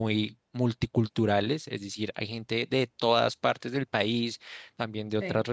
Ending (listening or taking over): listening